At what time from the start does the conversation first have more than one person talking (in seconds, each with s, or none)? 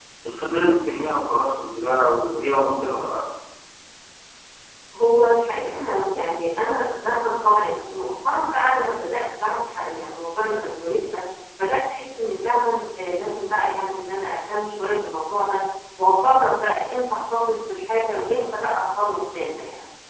none